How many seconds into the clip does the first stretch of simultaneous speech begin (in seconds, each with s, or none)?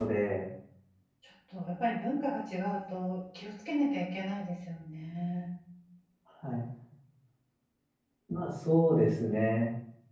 none